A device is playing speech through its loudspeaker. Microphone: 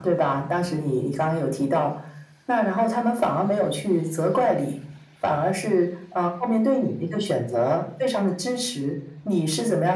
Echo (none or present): present